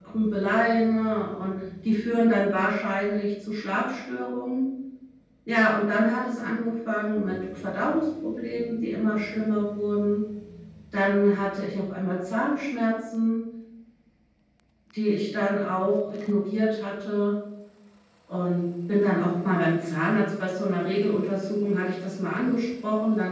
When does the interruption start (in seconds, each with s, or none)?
none